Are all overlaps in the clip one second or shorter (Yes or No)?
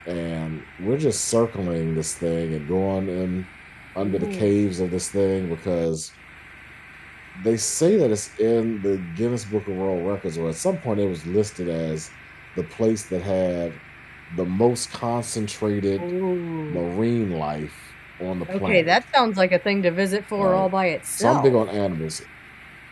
Yes